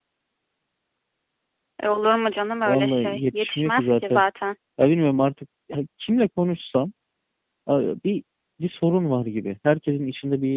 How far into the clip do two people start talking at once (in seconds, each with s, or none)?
2.6 s